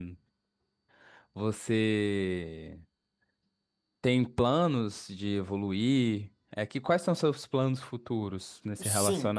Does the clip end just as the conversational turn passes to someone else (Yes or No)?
Yes